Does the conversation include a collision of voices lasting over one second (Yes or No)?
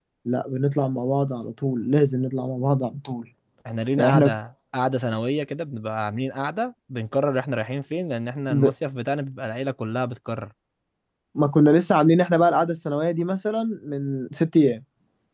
No